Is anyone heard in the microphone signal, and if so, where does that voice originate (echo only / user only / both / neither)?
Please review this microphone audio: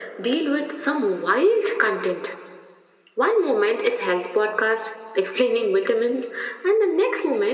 echo only